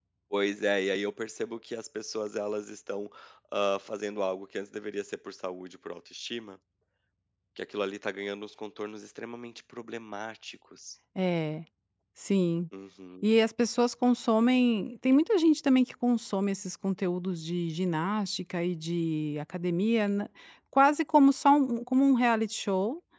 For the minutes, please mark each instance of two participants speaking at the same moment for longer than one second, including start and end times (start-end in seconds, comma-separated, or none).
none